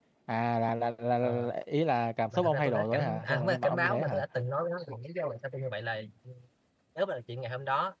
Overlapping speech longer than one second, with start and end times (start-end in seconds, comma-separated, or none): 2.3-4.2